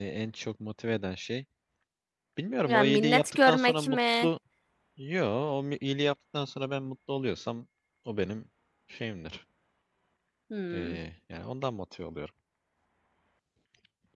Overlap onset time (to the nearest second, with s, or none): 3 s